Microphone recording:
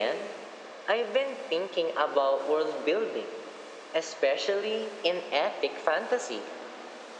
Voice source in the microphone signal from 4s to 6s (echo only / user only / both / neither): echo only